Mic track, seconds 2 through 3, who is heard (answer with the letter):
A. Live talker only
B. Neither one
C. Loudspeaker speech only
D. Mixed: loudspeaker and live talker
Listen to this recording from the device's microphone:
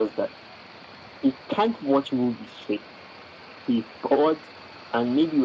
C